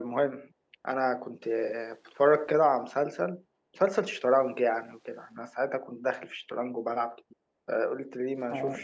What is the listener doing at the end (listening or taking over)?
taking over